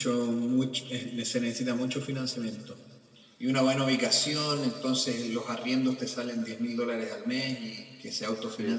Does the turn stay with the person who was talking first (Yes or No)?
Yes